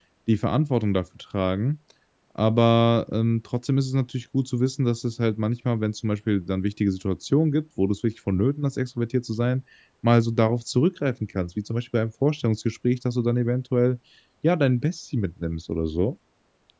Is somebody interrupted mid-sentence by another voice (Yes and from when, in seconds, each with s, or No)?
No